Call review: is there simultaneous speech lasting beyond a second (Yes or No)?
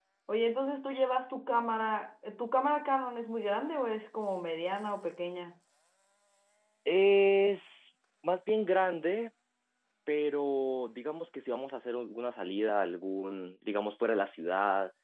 No